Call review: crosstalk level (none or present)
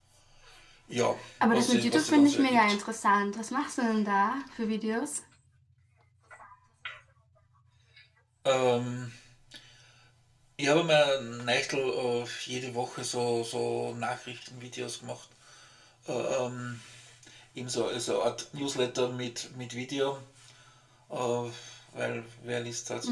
present